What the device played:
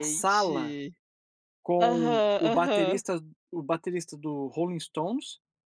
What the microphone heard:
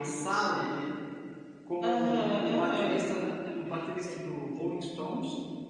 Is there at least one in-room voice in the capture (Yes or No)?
Yes